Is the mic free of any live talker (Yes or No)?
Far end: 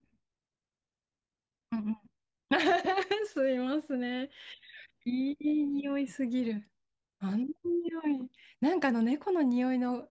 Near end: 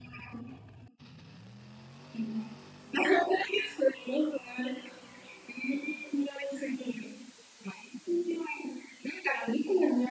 Yes